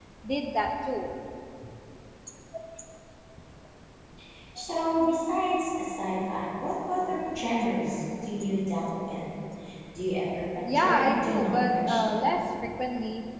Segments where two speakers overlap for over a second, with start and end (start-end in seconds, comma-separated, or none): 10.6-12.2